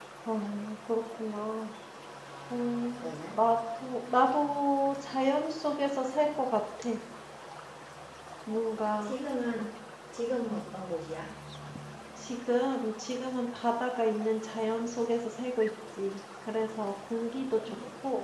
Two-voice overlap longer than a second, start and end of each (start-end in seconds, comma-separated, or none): none